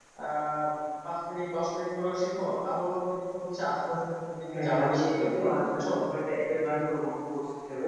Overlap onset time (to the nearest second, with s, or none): 4 s